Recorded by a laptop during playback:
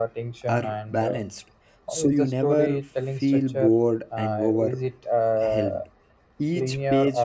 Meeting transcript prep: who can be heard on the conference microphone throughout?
both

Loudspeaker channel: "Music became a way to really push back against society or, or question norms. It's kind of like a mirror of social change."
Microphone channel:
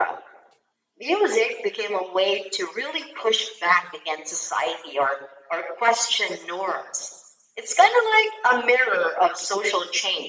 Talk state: echo only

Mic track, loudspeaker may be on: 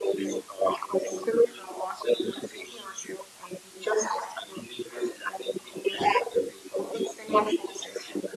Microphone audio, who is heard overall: echo only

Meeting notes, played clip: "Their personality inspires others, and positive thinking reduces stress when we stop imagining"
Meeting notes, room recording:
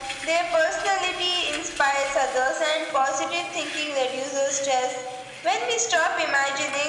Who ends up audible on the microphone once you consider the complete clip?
echo only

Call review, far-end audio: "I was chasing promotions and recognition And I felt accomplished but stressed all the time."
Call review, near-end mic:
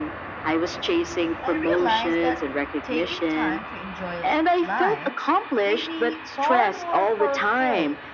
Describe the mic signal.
both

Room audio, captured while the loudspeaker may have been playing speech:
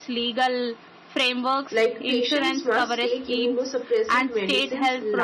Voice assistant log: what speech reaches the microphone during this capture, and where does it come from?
both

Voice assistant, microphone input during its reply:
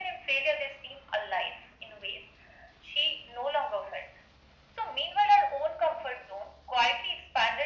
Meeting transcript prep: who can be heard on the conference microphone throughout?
echo only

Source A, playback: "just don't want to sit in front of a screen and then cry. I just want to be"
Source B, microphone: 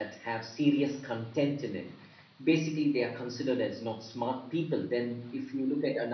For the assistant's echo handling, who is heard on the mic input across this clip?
user only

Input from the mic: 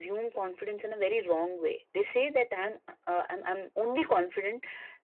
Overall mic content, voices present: echo only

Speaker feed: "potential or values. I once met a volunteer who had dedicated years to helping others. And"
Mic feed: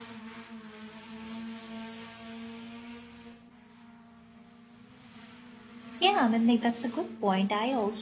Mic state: user only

